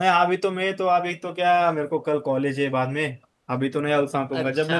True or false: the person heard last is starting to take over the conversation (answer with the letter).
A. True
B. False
B